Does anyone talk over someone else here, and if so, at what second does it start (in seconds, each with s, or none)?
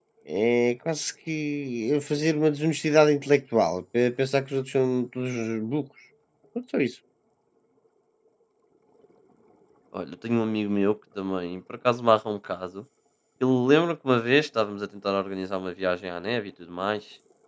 none